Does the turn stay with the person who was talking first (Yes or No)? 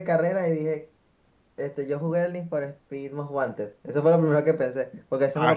Yes